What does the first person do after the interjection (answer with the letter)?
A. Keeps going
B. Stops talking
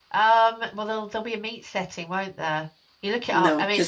A